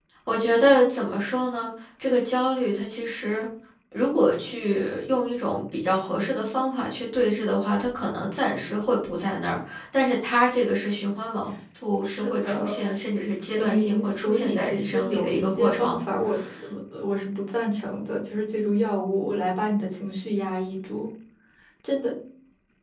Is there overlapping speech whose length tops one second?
Yes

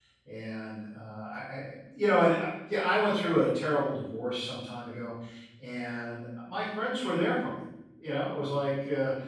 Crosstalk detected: No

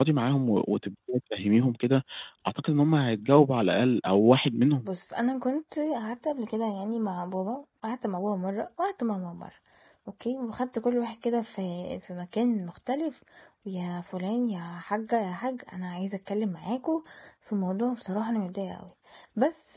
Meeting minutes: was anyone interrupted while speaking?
No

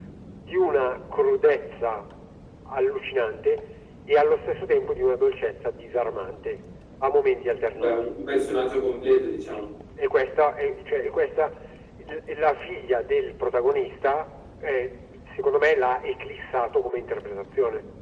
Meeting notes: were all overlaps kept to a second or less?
Yes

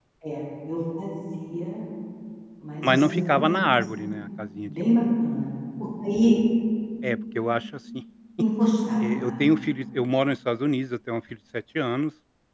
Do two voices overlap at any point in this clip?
Yes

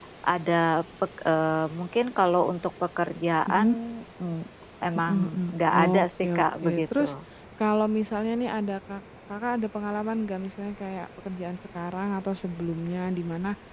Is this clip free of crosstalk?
No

